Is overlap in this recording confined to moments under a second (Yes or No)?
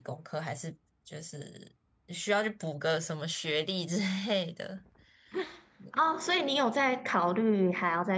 Yes